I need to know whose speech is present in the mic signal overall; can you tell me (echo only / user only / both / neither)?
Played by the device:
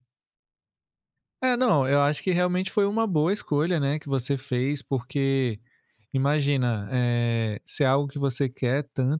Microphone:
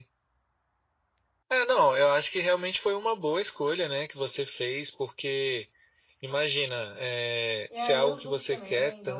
both